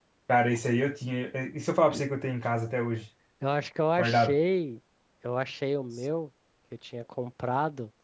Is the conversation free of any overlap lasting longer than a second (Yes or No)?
Yes